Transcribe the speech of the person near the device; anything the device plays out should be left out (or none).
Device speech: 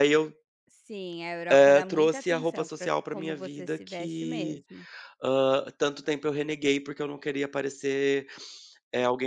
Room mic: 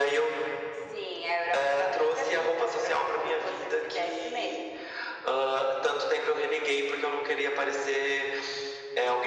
none